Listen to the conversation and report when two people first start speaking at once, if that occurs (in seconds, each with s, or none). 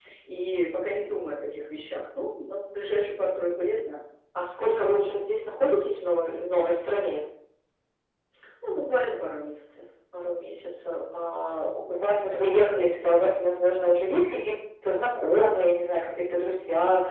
none